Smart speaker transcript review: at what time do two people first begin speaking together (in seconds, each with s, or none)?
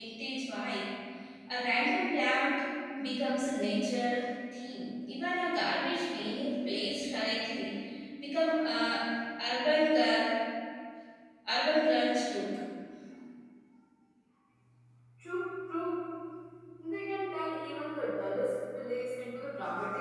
none